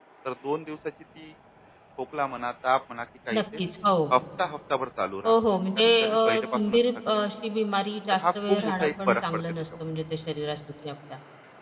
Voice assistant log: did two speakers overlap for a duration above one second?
Yes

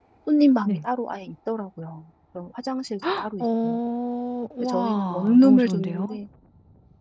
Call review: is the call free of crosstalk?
No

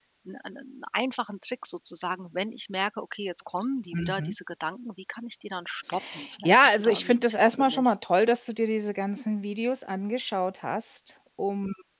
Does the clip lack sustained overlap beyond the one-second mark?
No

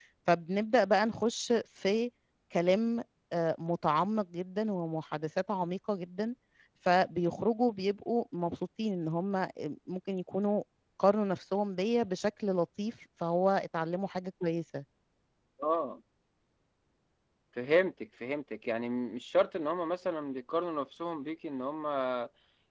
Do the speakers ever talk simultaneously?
No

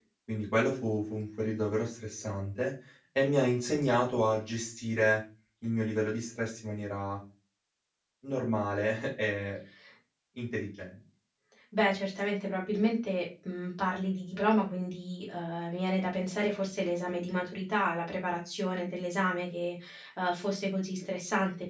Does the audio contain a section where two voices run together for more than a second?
No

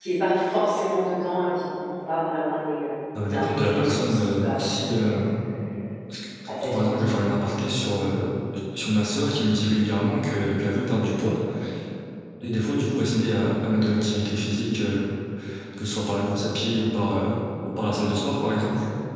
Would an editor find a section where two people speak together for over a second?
Yes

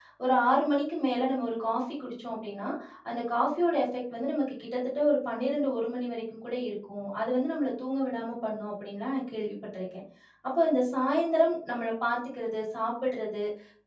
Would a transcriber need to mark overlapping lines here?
No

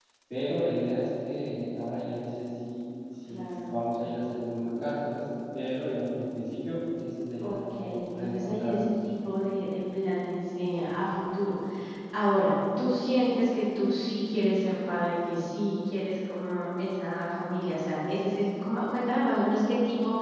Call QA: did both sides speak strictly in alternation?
No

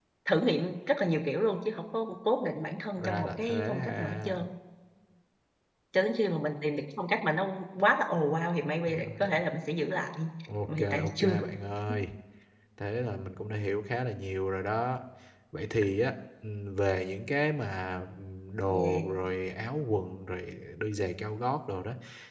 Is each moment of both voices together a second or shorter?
No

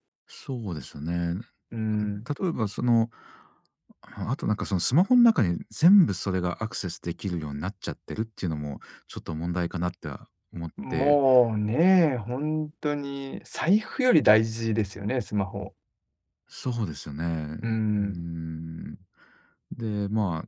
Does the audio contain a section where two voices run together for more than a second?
No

